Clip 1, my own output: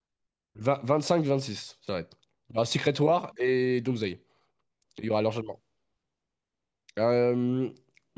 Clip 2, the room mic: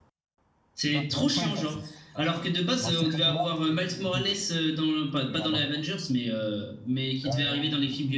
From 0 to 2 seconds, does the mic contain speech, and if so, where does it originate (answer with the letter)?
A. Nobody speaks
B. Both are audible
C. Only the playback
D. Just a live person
B